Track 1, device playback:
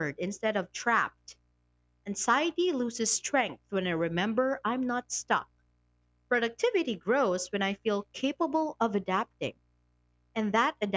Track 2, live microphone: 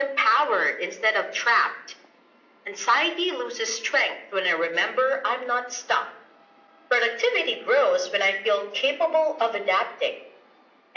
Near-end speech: none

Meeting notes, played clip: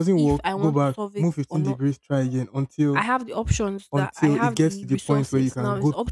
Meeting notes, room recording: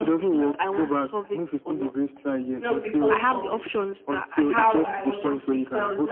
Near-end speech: present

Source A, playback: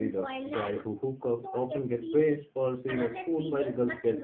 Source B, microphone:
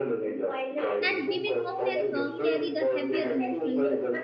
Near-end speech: present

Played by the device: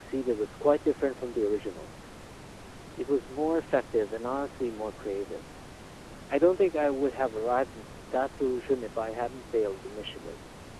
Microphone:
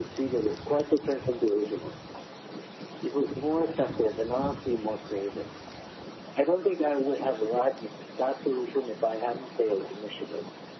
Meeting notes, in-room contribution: none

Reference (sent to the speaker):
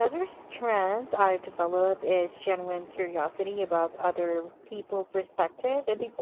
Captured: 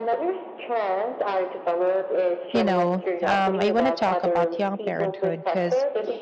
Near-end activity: present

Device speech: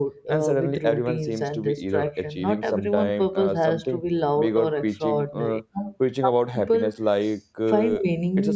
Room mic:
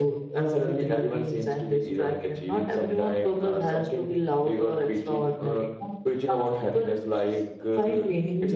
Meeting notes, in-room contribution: none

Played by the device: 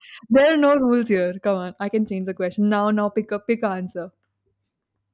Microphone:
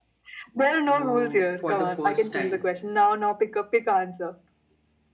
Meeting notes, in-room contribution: present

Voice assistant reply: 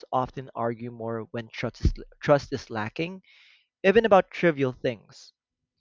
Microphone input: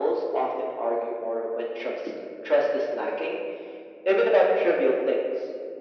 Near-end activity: none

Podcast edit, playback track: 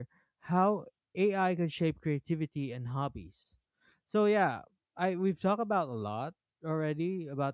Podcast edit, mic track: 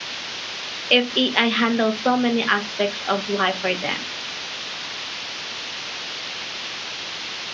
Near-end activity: present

